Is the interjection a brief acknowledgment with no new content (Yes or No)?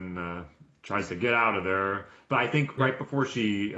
Yes